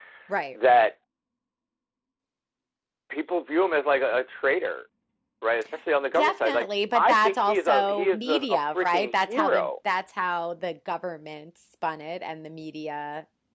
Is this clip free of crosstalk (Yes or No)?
No